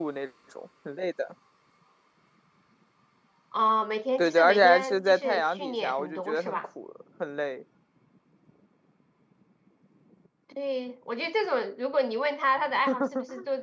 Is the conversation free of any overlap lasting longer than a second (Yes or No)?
No